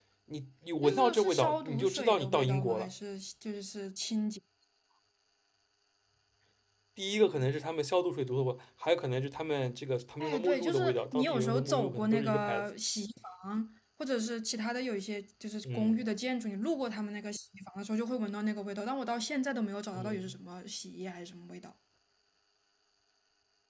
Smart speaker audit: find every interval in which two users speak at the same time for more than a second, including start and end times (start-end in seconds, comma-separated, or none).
0.8-2.9, 10.2-12.6